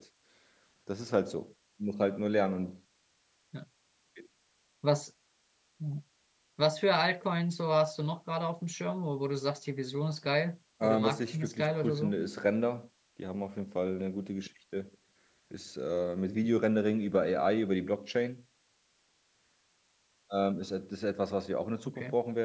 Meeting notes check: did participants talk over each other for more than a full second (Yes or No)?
Yes